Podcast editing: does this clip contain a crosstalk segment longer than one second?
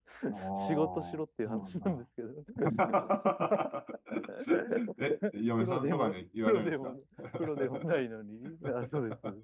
Yes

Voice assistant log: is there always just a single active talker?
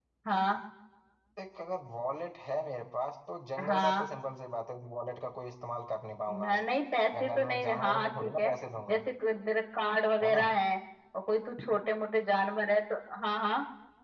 No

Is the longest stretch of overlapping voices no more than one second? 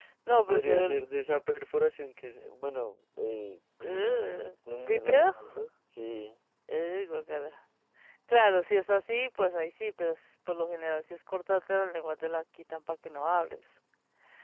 No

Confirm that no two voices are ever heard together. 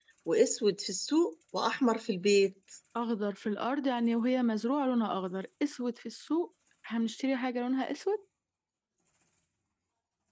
Yes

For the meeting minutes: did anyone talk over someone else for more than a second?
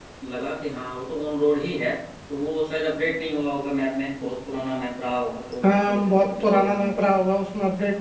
Yes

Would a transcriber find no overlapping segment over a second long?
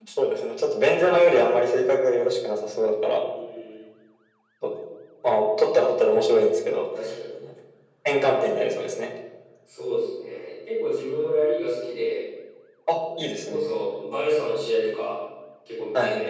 Yes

